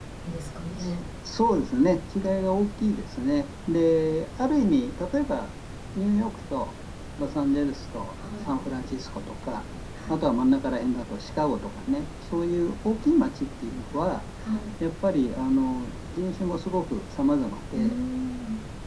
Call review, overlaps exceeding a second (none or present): none